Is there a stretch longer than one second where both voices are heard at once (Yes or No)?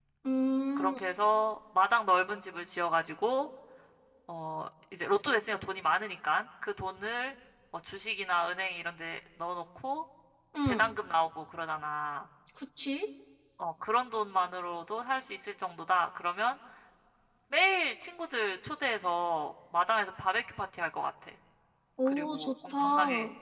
Yes